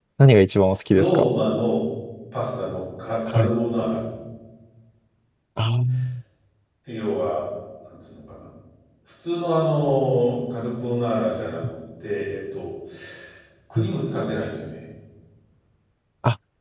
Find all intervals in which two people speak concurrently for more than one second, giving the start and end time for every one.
none

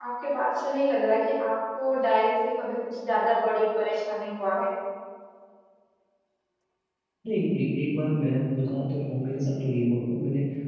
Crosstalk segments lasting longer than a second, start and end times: none

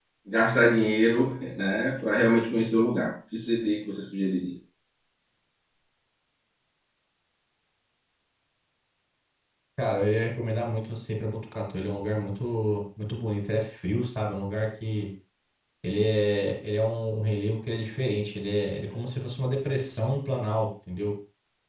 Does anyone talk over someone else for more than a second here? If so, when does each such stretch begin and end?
none

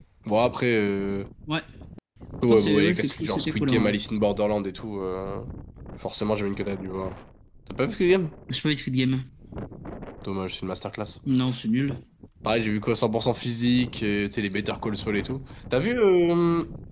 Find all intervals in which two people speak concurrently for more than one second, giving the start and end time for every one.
2.4-4.0

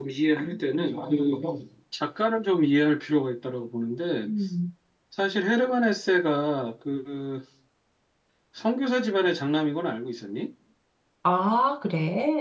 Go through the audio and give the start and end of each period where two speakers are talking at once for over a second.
none

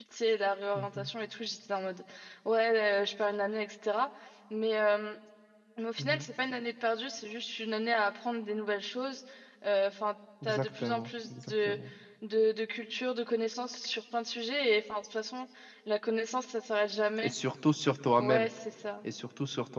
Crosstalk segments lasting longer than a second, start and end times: 10.4-11.8

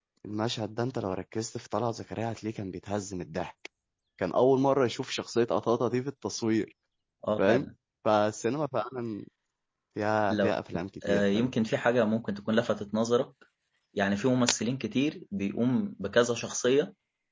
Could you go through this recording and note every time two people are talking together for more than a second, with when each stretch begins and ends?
none

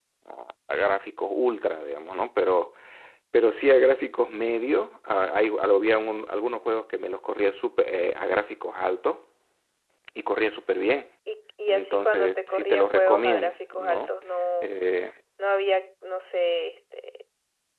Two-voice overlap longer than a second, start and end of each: 11.7-14.1

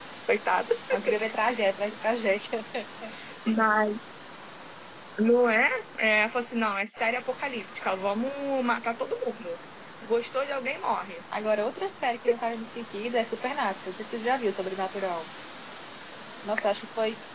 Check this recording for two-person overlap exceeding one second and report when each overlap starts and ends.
none

